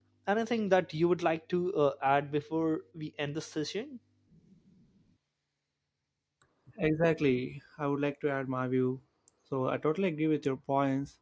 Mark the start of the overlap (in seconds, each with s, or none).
none